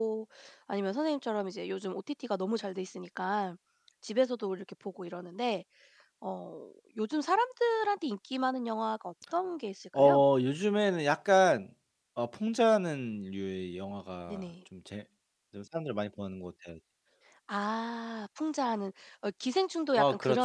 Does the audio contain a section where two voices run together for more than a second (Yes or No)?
No